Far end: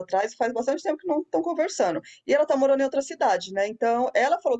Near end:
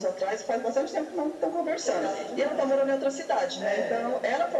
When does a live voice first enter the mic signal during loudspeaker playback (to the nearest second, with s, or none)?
2 s